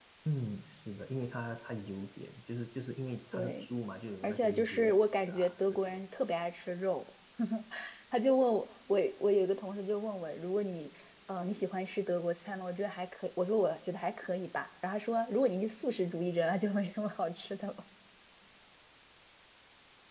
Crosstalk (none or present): present